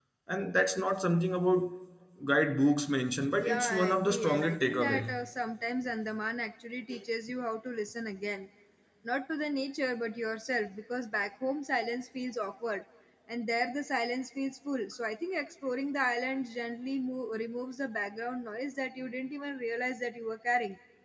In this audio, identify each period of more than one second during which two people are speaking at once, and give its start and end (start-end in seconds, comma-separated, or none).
3.4-5.2